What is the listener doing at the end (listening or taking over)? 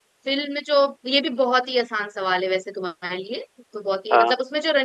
listening